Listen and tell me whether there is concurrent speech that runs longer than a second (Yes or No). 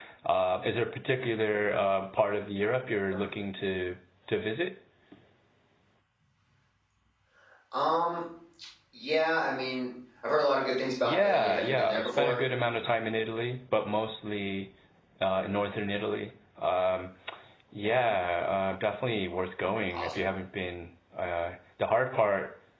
Yes